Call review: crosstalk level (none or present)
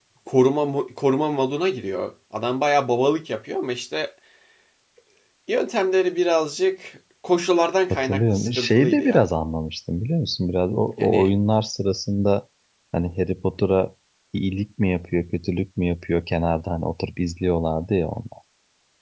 present